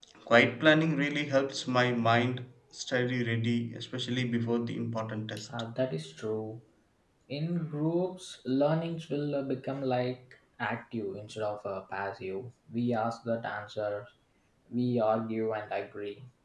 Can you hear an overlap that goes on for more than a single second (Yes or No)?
No